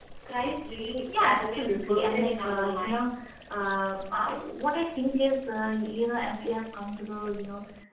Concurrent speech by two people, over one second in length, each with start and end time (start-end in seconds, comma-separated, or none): 1.1-3.0